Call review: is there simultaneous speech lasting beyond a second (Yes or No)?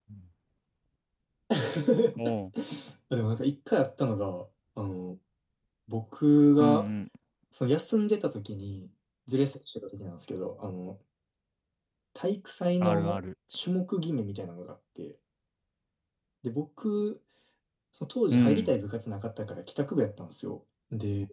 No